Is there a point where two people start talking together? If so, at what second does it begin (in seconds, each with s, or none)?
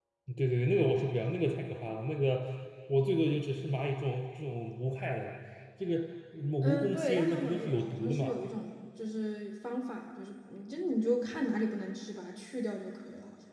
6.6 s